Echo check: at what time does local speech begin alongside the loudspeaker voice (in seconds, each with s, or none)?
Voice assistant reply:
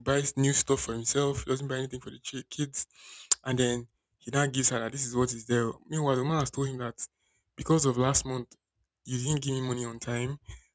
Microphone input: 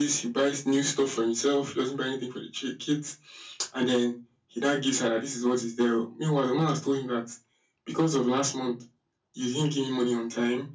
none